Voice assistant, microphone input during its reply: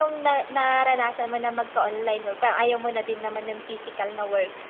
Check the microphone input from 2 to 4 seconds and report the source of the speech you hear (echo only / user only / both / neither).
user only